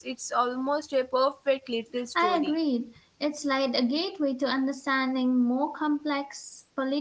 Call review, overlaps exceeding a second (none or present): none